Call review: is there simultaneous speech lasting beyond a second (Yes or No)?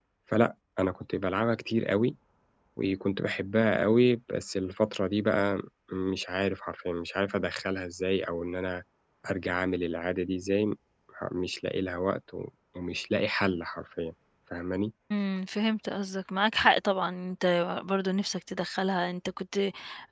No